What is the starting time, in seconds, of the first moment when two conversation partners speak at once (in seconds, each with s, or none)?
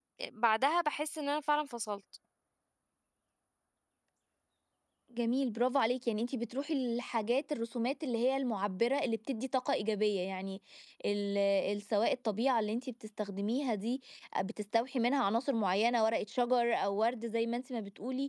none